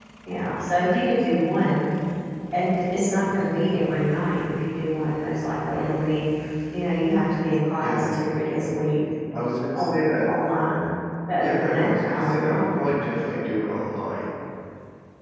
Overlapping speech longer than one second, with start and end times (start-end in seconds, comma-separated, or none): 11.4-12.8